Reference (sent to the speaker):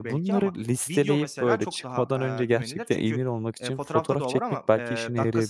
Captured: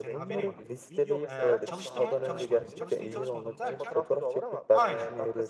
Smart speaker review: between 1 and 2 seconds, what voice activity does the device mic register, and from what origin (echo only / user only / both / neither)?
both